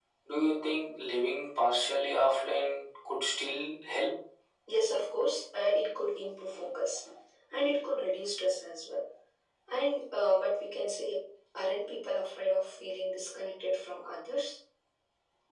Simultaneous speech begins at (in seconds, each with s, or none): none